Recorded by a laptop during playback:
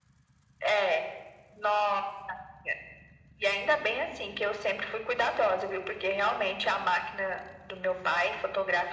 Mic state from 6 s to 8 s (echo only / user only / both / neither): echo only